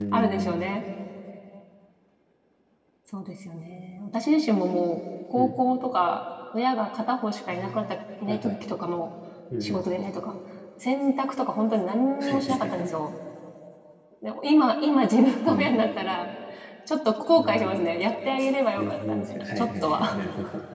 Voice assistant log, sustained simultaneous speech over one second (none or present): present